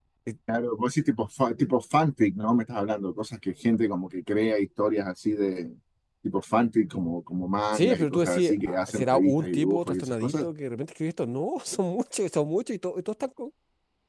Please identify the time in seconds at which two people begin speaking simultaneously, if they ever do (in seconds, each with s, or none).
7.7 s